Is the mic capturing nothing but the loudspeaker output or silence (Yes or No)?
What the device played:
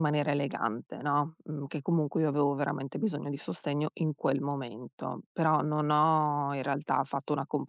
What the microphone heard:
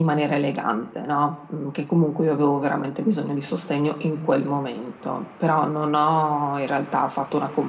Yes